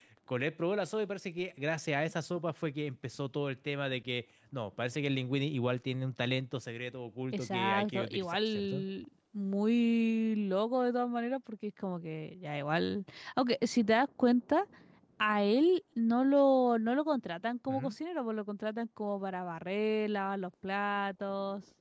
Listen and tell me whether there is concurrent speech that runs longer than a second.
Yes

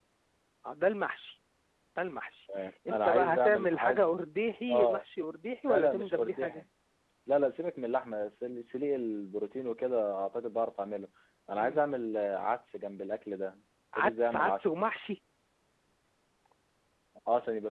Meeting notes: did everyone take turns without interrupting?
No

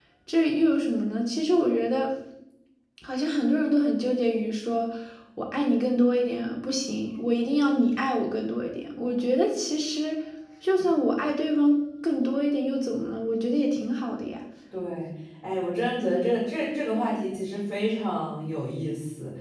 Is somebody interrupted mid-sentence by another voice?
No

